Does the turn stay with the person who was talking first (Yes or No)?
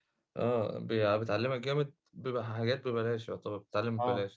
No